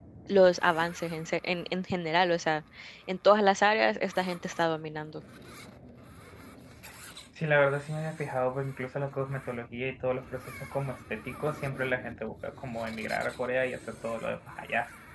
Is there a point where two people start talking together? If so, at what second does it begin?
none

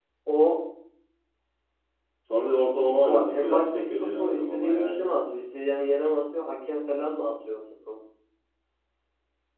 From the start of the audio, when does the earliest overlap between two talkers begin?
3.0 s

